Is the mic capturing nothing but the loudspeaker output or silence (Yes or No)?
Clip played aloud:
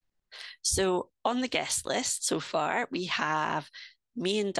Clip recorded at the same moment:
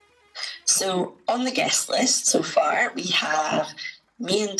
Yes